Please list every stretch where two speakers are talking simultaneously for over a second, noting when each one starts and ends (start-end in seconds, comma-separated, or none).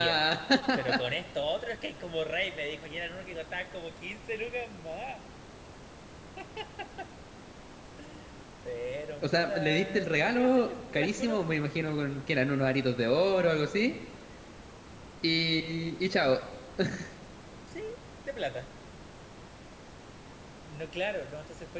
9.2-11.4